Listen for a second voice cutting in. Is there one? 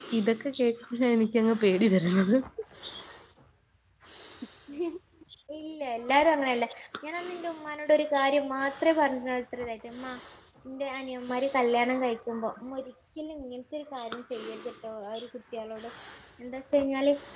No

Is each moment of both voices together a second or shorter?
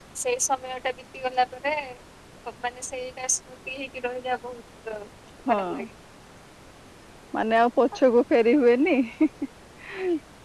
Yes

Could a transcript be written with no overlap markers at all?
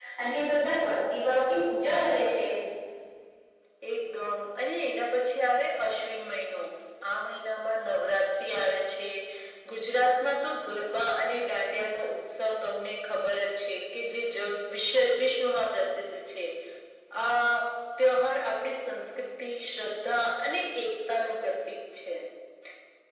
Yes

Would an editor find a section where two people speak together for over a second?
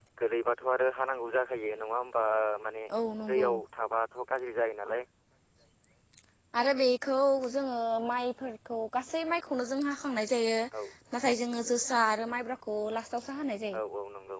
No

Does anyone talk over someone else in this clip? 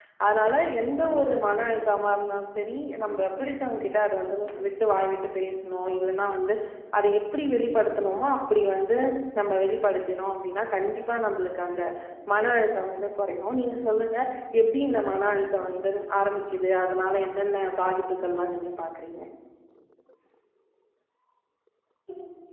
No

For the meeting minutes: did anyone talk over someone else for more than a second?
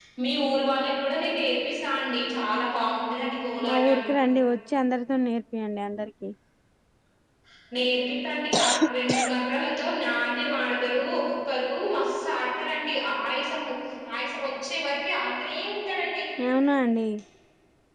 No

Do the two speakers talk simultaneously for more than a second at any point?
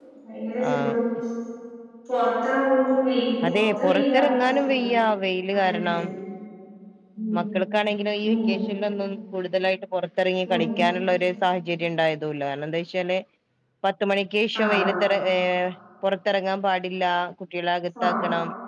Yes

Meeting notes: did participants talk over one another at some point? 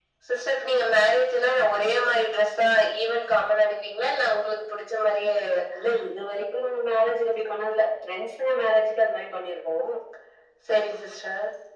No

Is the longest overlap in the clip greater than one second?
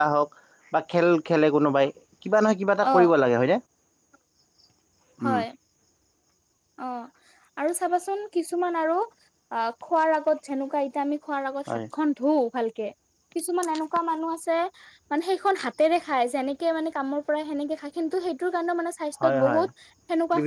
No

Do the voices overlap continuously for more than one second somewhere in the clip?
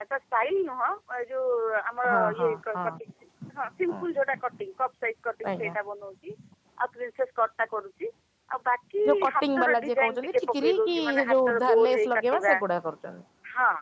Yes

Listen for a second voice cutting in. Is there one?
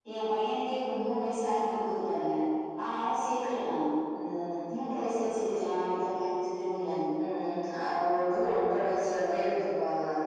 No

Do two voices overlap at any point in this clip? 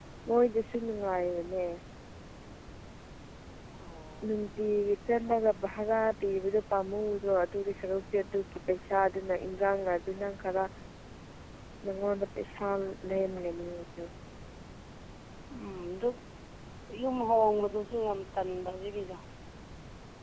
No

